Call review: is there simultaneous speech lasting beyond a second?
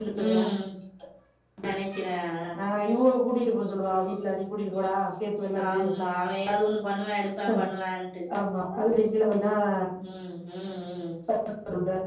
No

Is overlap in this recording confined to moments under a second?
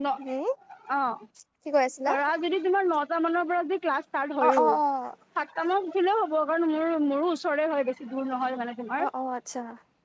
Yes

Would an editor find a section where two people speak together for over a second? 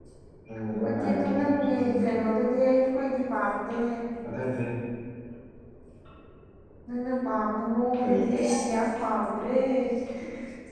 Yes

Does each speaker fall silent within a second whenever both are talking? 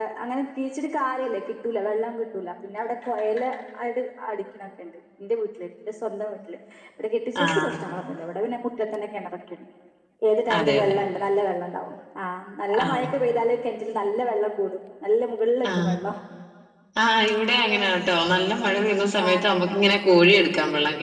Yes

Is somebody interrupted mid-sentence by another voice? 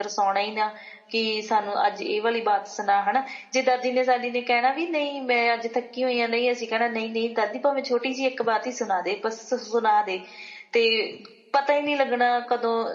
No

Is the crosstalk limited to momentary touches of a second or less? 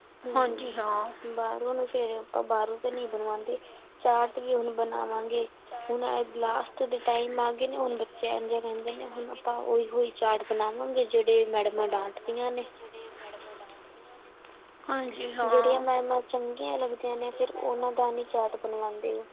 Yes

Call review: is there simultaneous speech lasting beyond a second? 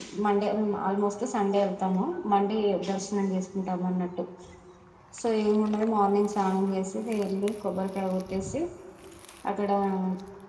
No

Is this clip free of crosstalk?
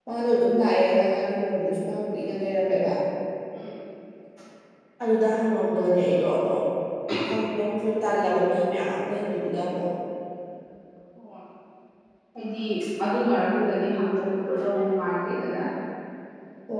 Yes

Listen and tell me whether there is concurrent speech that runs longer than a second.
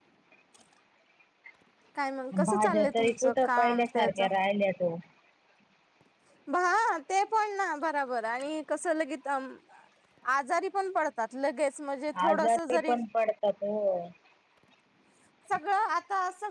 Yes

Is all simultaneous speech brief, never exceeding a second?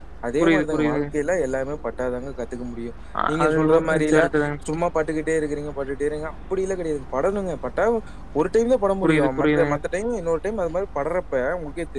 No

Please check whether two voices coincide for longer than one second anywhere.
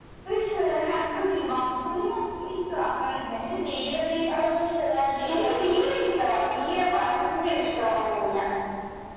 No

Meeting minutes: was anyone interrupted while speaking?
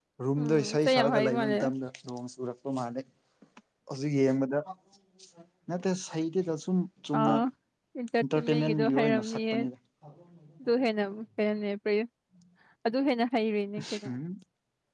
Yes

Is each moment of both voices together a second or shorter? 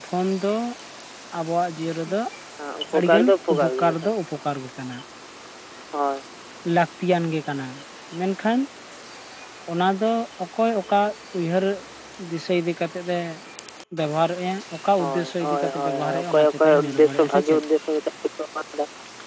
No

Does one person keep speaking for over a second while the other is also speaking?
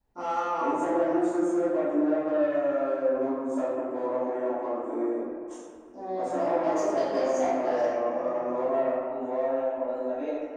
Yes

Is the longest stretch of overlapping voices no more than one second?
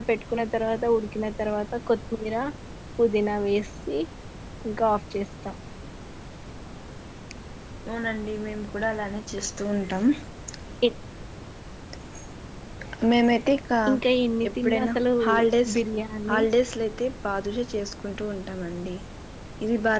Yes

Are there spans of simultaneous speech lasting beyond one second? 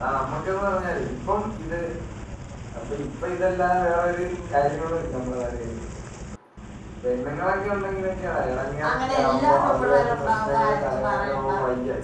Yes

